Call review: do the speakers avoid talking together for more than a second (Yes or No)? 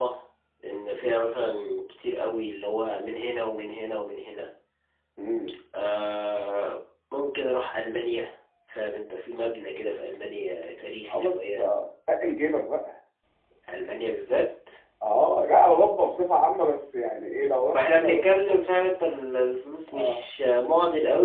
No